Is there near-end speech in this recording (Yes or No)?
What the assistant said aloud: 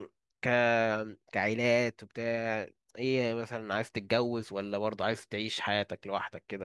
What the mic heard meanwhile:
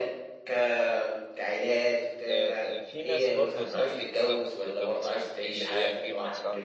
Yes